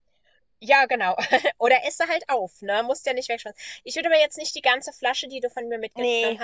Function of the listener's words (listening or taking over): listening